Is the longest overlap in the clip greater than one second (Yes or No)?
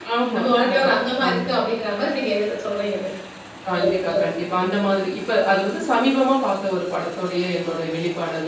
No